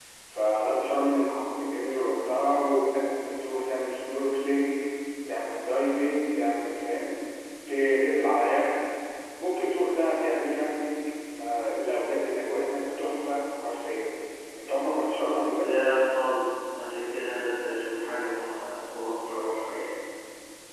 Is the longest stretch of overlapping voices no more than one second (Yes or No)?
Yes